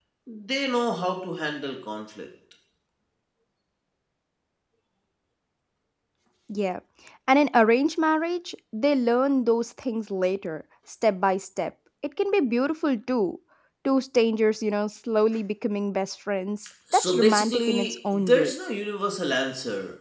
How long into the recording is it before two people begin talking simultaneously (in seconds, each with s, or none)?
16.9 s